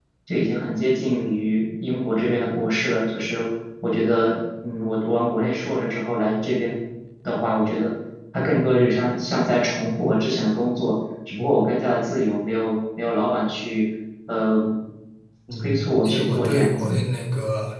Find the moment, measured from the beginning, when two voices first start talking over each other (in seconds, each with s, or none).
15.6 s